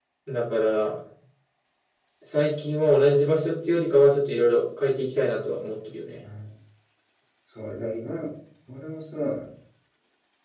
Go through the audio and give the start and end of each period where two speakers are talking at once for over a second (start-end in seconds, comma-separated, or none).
none